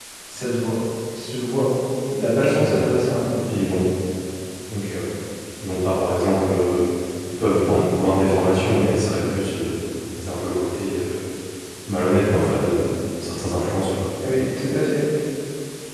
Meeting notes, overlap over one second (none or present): none